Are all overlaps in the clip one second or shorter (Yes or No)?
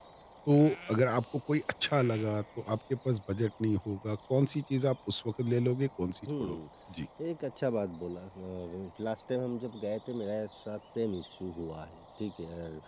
Yes